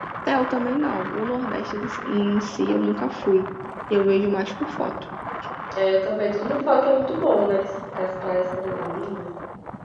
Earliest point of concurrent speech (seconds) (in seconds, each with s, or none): none